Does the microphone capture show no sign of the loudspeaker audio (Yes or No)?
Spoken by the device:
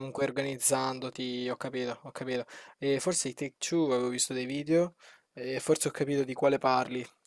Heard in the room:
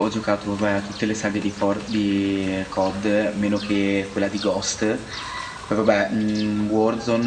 Yes